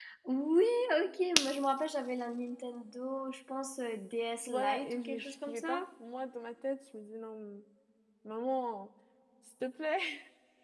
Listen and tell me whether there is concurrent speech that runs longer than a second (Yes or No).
Yes